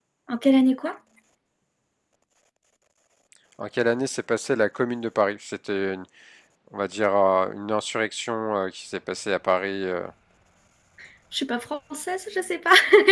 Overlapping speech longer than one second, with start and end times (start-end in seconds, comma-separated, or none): none